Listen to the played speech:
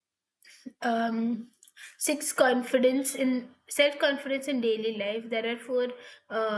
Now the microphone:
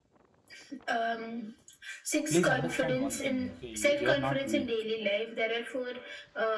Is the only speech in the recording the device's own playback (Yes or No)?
No